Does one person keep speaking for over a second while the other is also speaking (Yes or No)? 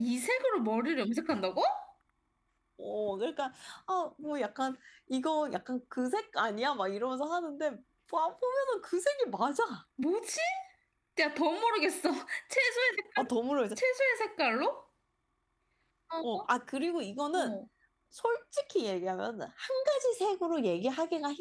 No